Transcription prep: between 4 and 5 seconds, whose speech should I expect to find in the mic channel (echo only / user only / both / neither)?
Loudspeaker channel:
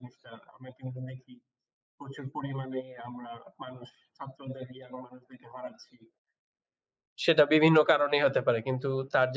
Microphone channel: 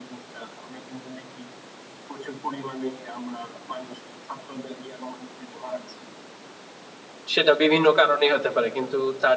echo only